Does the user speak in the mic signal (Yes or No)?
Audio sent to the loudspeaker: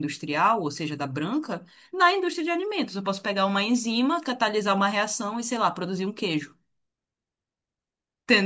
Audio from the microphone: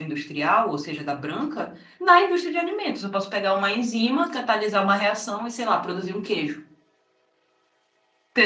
No